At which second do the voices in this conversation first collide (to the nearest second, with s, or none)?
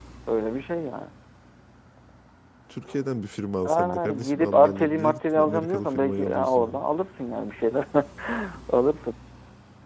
4 s